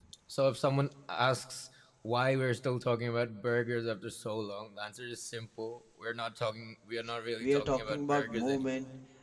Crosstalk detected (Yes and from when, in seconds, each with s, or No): Yes, from 7.4 s